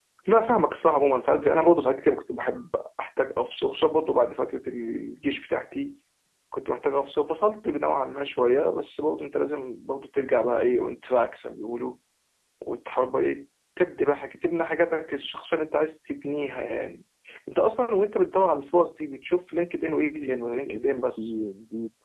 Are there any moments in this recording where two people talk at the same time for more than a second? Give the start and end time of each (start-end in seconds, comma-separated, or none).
20.0-21.3